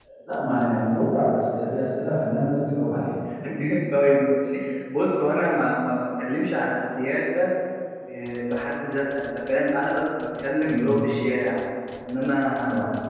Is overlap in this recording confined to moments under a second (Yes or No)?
Yes